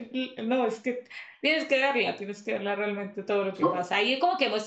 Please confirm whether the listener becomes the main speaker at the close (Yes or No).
No